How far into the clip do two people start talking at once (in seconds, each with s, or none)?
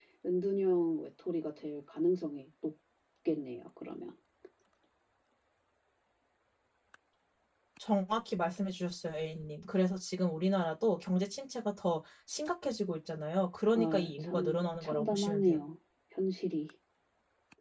13.7 s